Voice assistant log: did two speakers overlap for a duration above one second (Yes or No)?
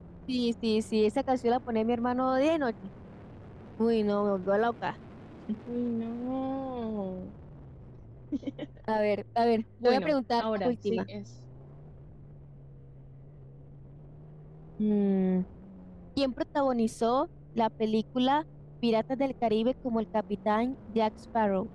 Yes